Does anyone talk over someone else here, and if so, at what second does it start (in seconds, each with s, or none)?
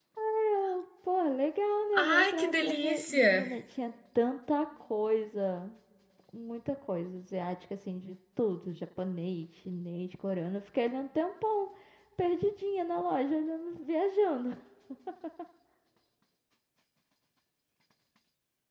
1.9 s